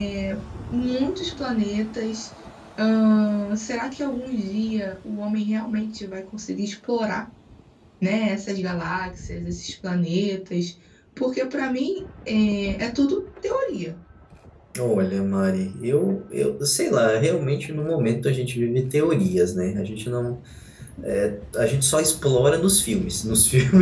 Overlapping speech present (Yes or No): No